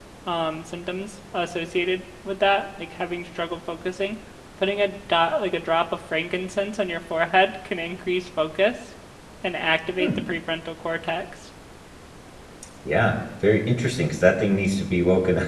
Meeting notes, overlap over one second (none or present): none